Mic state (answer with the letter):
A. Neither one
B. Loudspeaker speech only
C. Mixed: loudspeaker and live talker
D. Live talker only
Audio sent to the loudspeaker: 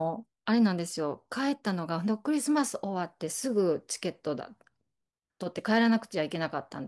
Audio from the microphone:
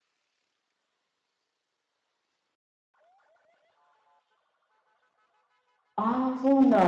D